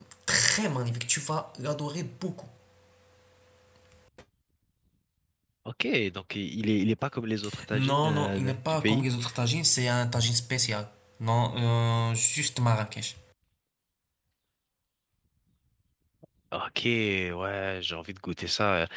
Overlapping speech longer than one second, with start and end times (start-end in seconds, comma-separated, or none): 7.7-9.0